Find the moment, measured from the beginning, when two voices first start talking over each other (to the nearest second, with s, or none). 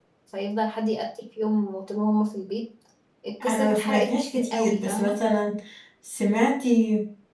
3 s